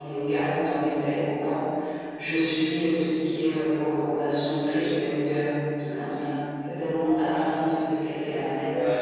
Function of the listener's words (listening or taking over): taking over